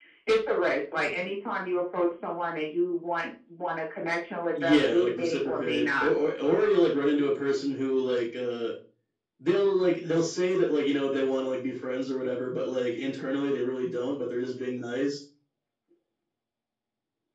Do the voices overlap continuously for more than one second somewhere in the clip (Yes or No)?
Yes